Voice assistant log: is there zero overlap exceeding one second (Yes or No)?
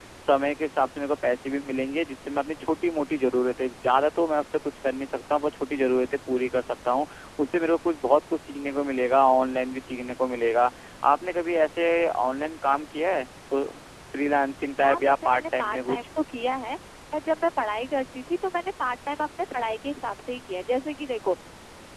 No